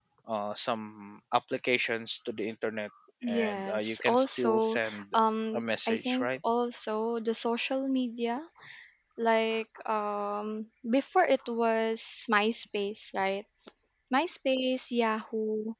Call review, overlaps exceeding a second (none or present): present